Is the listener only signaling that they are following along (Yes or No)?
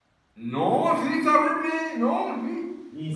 No